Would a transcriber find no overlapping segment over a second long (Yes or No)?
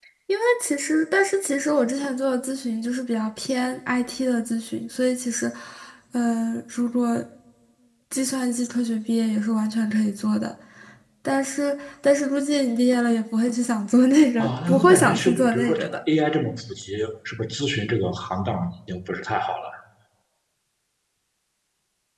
No